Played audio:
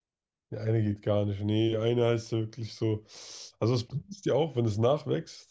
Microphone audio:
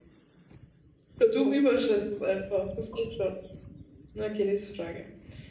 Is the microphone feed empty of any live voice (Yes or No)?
No